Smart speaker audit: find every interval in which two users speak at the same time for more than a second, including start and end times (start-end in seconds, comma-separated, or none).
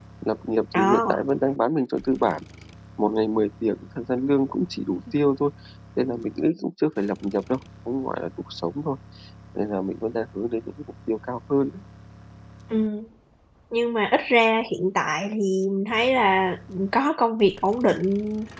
none